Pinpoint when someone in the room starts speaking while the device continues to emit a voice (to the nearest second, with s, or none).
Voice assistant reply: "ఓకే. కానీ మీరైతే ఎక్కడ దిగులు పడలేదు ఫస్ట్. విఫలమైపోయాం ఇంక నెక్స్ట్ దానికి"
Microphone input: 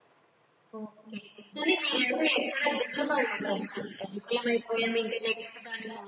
none